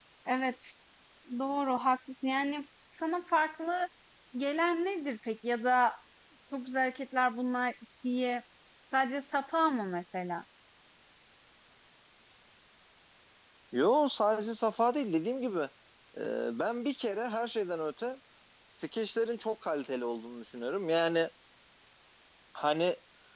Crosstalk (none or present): none